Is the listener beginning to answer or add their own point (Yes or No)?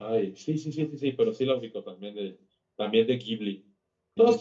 No